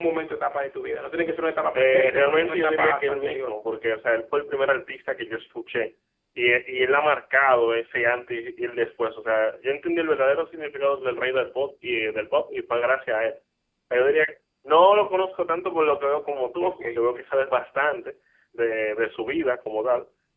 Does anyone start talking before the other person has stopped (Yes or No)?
Yes